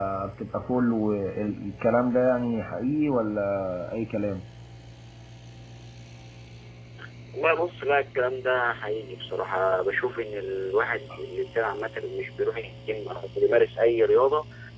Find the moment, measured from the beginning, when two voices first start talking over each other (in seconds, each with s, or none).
none